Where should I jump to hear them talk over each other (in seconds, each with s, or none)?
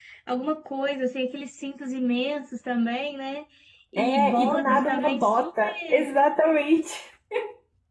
4.0 s